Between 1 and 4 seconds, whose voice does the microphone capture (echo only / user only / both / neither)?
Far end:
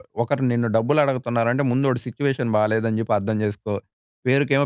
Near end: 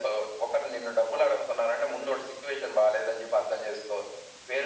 echo only